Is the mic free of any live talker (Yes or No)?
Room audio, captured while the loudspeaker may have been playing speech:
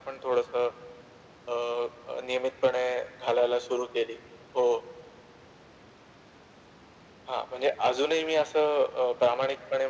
Yes